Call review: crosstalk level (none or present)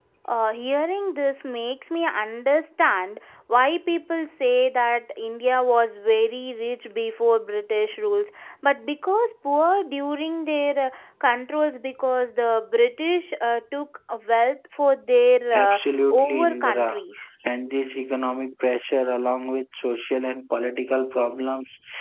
present